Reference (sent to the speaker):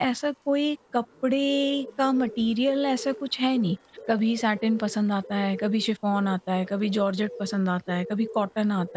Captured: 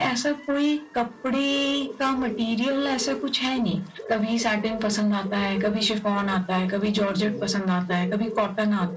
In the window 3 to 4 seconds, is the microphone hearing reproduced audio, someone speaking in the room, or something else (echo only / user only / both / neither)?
echo only